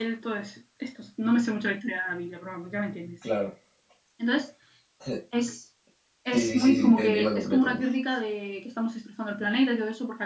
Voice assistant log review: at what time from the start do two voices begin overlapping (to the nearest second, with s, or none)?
6 s